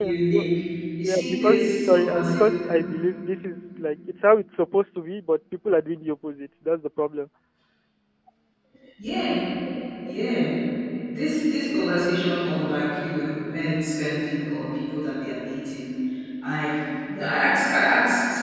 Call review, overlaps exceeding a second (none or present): present